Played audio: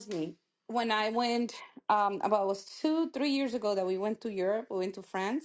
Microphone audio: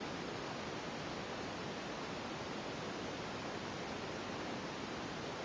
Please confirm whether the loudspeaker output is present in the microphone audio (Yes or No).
No